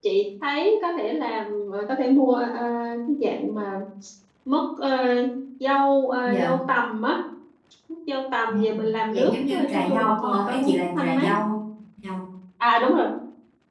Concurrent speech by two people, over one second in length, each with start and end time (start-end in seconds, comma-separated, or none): 9.1-11.3